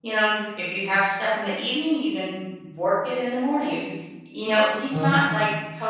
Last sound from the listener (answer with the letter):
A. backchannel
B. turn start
A